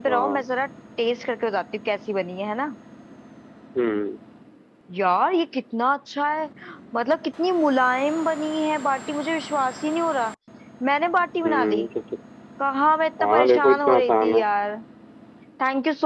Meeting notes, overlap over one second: present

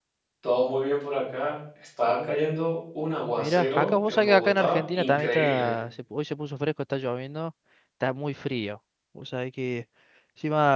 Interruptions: present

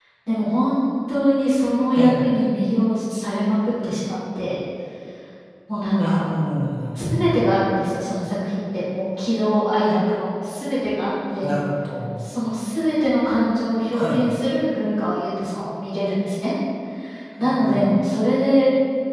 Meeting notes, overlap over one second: none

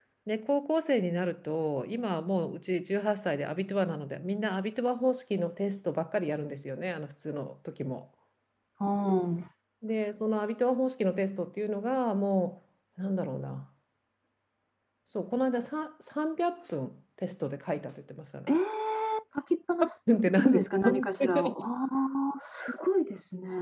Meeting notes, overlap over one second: present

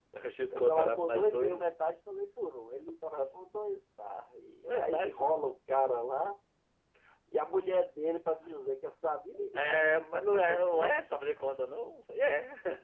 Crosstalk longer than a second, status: present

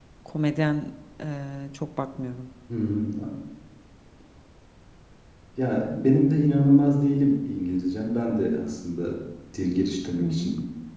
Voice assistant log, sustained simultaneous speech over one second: none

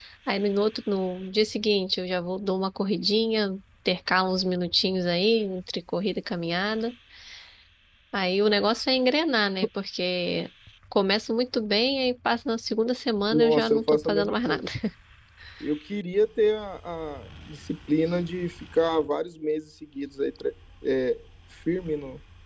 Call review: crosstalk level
present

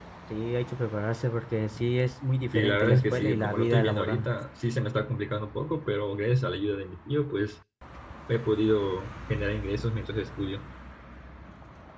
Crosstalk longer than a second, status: present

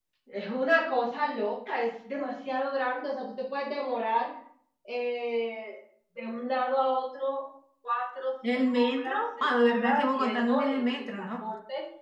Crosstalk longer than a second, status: present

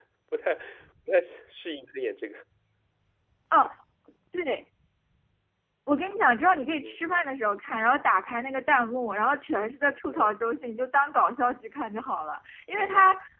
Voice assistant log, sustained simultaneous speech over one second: none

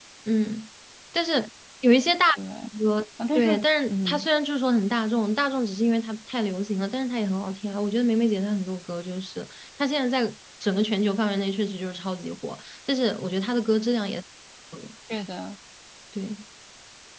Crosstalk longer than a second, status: none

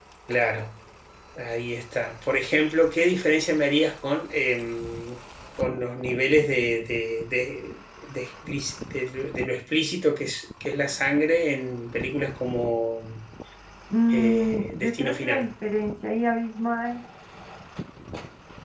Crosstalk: present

